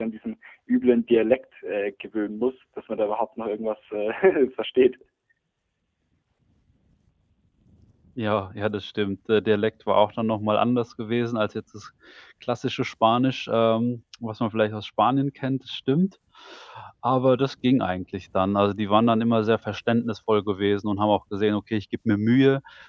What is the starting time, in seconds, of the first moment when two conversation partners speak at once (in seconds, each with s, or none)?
none